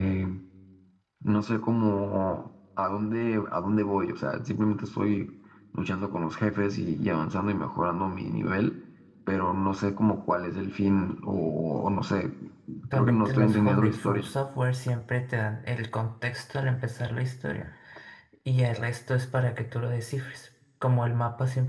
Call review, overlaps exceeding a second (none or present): present